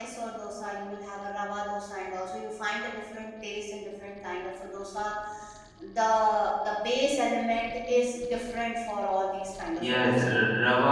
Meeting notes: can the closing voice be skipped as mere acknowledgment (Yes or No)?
No